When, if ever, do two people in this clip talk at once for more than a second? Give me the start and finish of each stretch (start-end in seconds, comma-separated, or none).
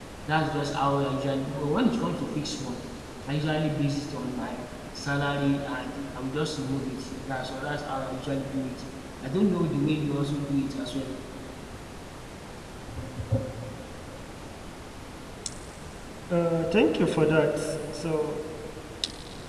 none